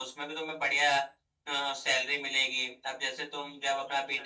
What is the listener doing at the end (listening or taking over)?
listening